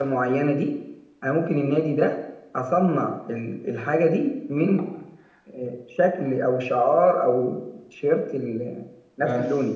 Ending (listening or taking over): taking over